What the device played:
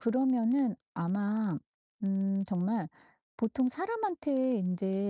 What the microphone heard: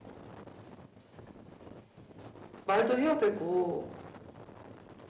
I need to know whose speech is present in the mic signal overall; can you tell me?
user only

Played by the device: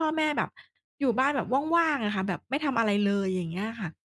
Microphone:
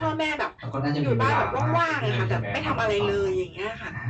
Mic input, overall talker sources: both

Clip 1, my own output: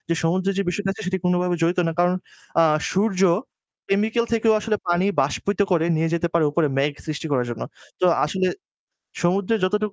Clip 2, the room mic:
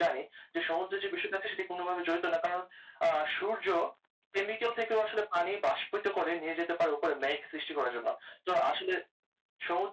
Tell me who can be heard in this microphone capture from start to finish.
echo only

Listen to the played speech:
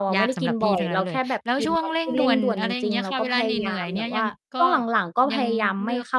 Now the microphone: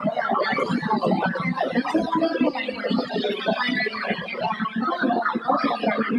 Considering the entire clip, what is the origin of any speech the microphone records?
echo only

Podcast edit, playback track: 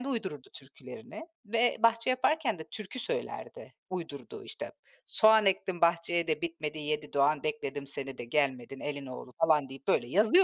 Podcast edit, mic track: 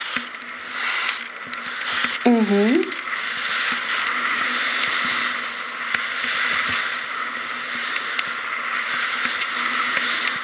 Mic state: user only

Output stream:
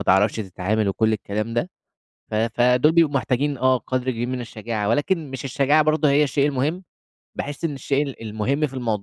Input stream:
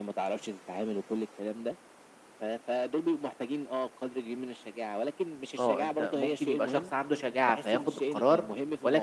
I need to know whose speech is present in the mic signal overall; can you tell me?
both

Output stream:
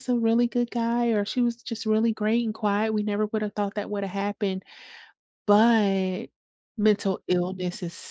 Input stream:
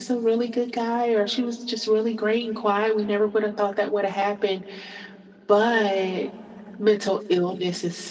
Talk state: echo only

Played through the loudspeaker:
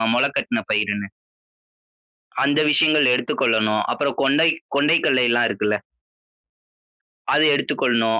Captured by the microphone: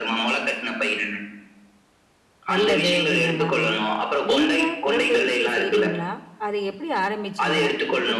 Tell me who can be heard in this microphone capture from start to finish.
both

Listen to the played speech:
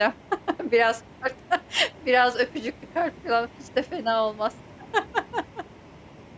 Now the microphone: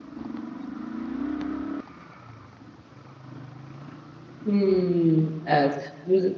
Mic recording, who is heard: user only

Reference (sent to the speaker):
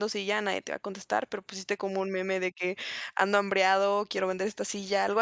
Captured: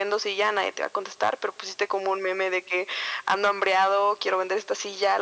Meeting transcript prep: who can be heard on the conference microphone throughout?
echo only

